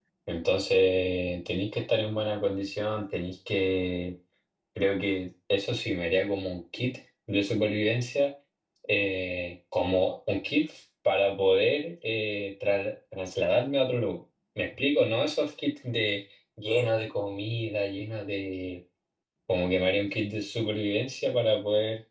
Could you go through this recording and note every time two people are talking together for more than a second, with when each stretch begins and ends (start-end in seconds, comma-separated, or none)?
none